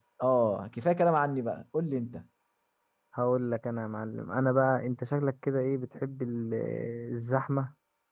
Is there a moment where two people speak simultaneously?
No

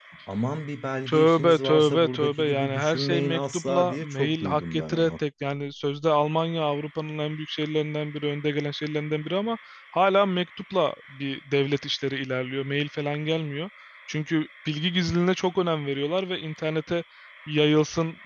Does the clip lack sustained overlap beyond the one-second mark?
No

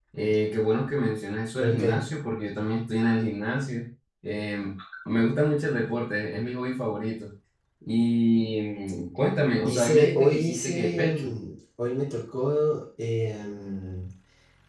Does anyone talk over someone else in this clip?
Yes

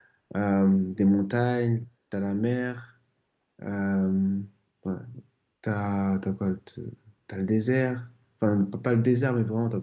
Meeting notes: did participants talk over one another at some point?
No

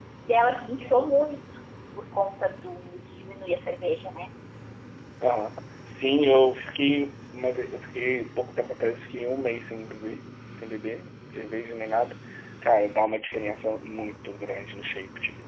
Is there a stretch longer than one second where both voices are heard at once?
No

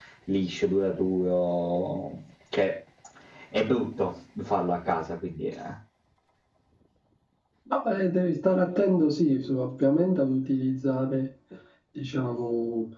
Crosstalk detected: No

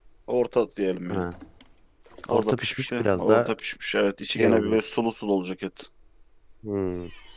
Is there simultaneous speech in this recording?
Yes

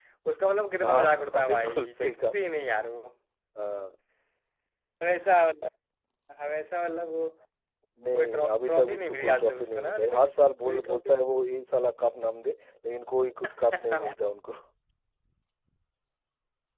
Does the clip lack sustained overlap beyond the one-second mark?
No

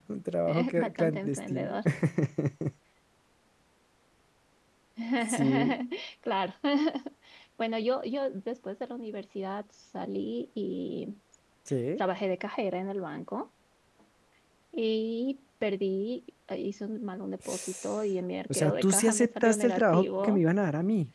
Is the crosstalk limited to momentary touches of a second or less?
No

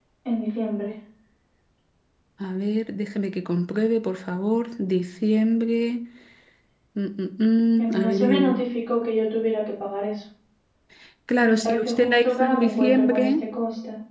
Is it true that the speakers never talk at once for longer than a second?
No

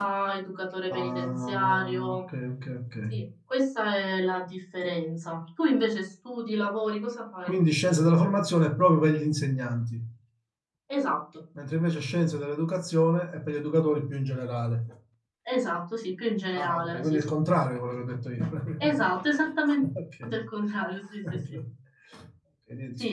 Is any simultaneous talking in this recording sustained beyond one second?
Yes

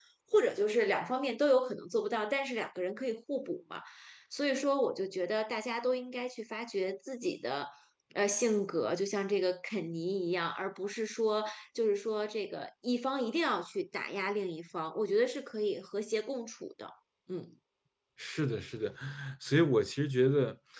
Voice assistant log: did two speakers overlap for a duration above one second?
No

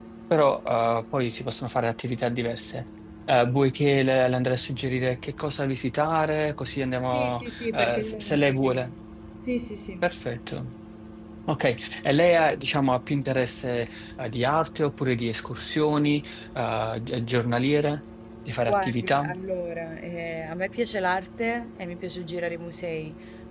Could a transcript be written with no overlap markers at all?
No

